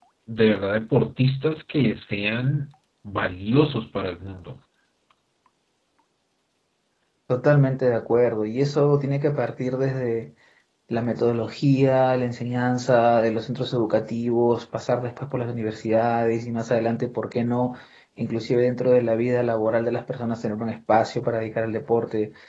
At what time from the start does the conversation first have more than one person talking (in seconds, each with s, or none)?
none